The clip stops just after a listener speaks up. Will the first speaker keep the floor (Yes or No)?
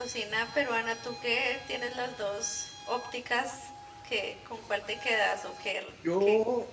No